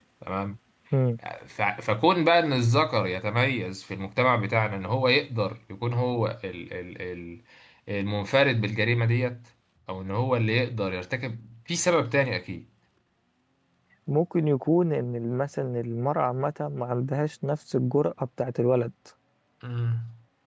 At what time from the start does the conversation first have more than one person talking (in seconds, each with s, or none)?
none